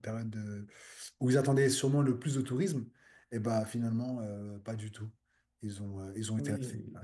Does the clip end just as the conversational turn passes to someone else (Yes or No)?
Yes